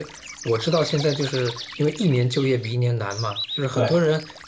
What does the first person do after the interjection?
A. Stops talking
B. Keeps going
B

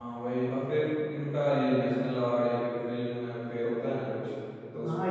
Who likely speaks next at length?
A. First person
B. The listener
B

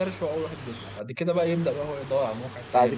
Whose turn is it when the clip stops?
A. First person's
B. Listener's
B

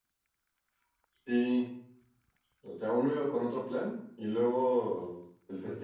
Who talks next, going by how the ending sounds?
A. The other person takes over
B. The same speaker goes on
B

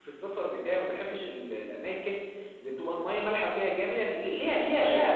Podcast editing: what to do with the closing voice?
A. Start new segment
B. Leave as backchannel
B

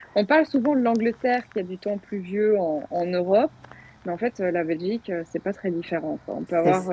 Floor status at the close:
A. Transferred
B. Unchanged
B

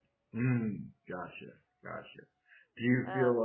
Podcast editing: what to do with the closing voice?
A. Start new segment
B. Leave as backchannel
B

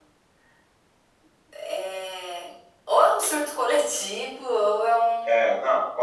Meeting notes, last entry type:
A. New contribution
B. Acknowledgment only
A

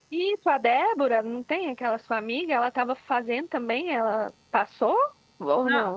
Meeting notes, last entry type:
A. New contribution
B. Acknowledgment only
A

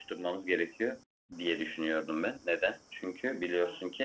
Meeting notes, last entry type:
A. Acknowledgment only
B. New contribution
A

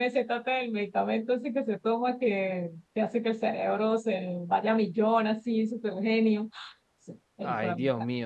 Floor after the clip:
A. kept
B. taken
B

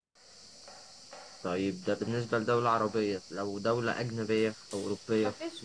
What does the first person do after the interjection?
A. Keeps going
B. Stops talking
B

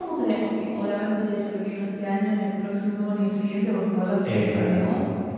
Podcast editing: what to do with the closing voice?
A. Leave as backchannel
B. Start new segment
A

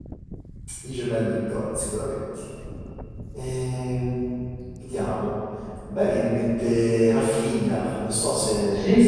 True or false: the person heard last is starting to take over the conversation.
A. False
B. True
B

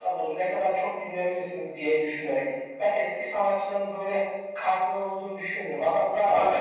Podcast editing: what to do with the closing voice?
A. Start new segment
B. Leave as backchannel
B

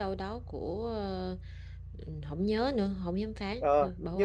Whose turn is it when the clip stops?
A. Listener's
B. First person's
A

